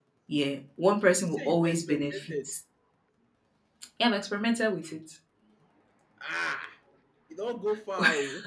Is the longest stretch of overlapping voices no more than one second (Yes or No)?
No